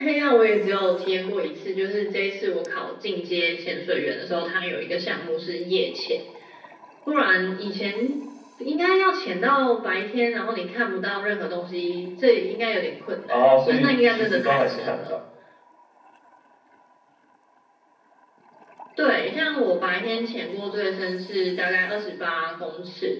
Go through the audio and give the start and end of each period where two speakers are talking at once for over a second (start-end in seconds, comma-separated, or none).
13.3-15.0